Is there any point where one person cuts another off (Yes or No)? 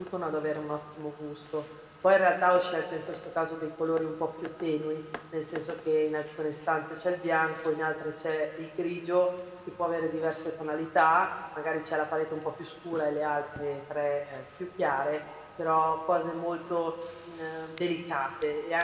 No